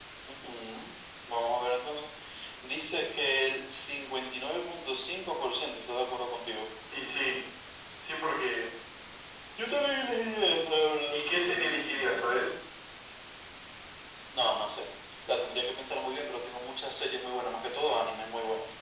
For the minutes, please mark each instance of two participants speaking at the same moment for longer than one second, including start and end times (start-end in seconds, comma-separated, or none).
11.1-12.5